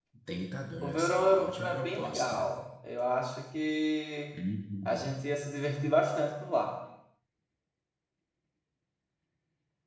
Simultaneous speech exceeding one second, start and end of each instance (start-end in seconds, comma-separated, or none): 0.8-2.5